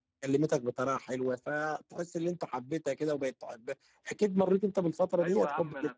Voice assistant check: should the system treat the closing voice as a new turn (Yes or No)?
Yes